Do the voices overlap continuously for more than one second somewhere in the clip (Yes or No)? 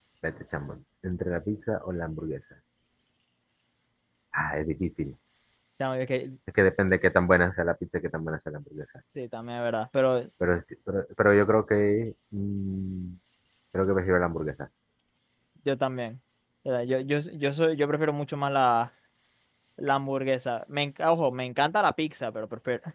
No